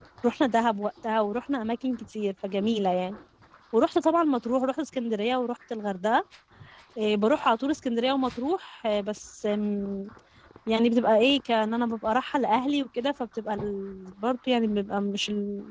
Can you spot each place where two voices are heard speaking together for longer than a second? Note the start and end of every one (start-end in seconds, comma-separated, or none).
none